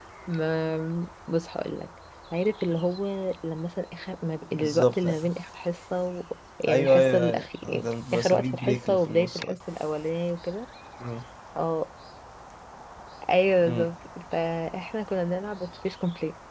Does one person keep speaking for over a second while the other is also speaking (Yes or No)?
Yes